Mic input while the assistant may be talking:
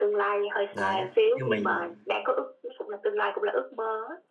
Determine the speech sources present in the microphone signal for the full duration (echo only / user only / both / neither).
both